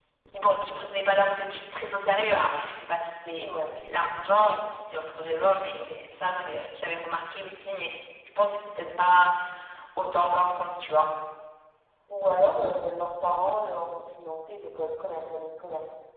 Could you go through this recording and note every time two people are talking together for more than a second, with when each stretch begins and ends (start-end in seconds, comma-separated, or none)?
none